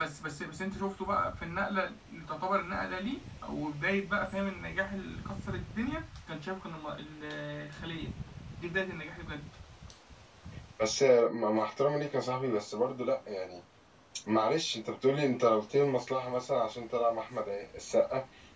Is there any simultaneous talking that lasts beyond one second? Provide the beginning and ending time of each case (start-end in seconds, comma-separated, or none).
none